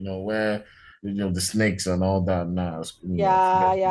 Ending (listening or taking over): taking over